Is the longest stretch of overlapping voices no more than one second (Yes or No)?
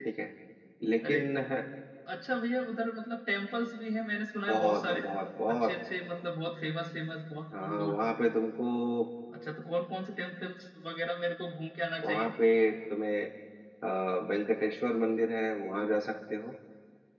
Yes